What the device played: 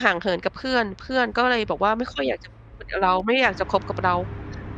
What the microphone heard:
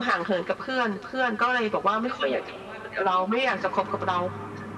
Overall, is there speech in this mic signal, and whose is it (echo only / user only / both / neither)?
both